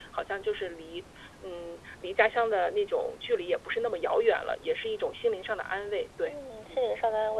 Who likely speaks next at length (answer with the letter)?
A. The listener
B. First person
A